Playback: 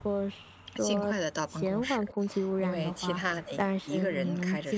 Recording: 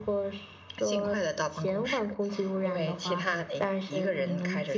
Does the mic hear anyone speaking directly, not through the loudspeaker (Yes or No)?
No